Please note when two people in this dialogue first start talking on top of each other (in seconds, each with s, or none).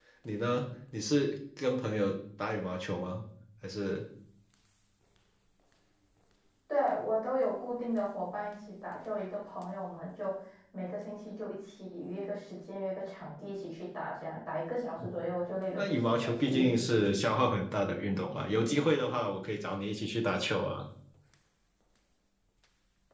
15.7 s